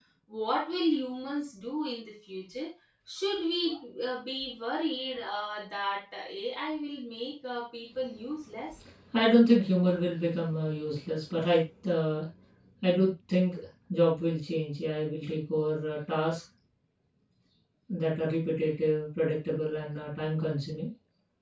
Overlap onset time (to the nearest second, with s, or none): none